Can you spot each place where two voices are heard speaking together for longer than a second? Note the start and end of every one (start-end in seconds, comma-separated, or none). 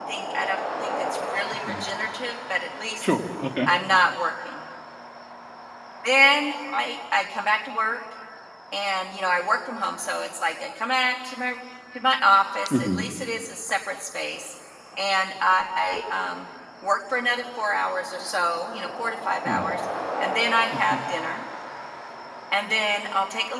none